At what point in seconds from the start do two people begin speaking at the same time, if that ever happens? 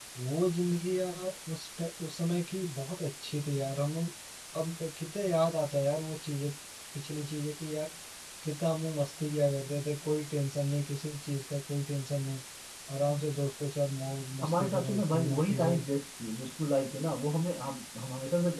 14.4 s

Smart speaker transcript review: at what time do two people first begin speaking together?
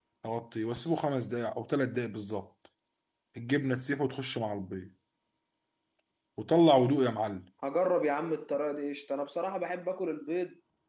none

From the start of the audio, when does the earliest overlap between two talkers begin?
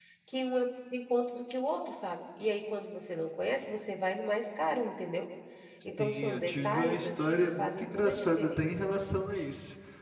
6.0 s

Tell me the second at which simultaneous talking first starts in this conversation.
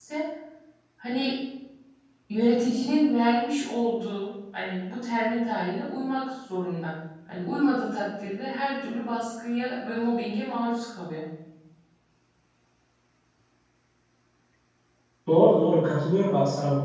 none

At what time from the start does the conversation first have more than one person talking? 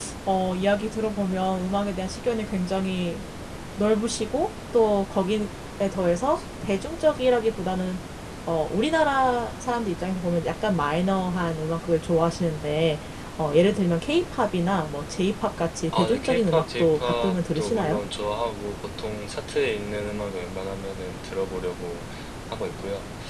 15.9 s

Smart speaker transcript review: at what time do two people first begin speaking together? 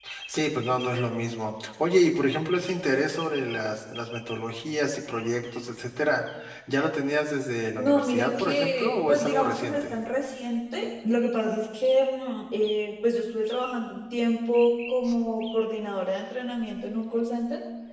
7.8 s

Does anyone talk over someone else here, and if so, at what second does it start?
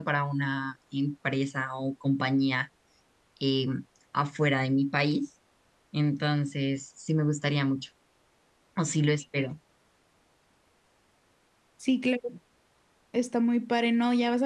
none

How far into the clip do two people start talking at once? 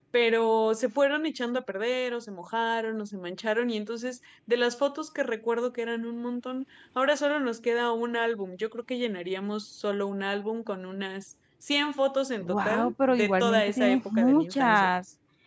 12.4 s

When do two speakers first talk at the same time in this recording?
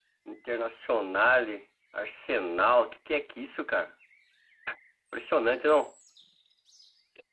none

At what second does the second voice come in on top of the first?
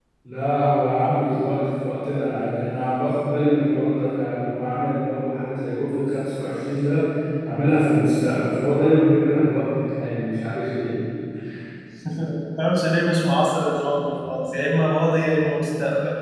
none

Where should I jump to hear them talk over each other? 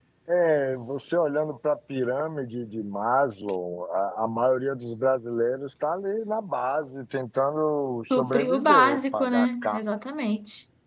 8.1 s

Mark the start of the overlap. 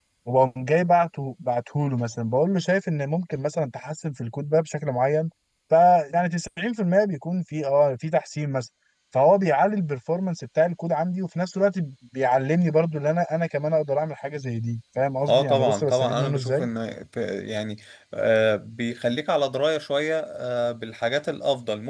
15.2 s

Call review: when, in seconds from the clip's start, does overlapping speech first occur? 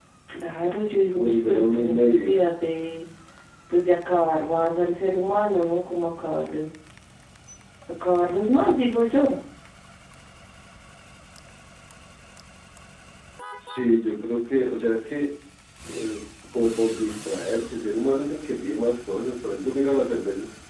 1.1 s

